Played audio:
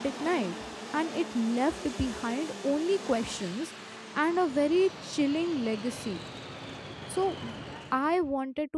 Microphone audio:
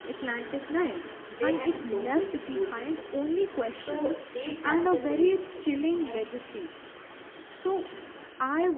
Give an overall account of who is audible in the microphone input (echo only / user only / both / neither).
both